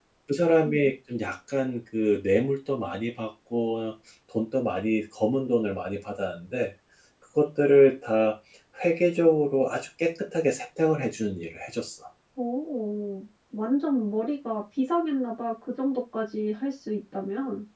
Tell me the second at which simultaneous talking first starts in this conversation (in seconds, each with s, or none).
none